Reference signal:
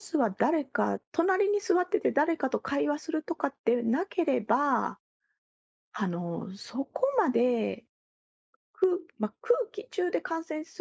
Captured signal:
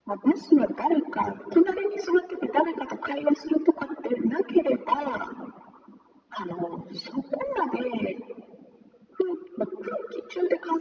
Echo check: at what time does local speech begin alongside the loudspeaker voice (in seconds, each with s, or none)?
none